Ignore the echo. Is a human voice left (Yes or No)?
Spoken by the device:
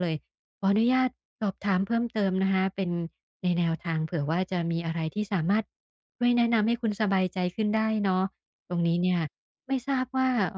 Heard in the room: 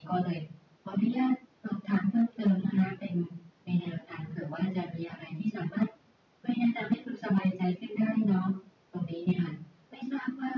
No